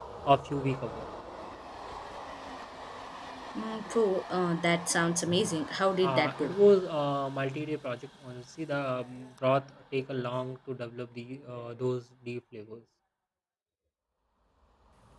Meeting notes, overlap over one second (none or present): none